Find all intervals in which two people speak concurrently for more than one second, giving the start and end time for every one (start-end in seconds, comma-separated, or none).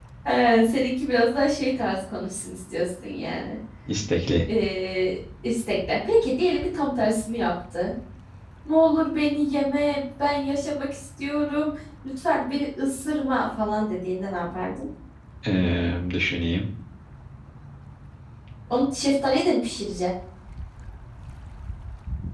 none